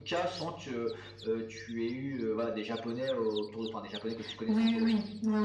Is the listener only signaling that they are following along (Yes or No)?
No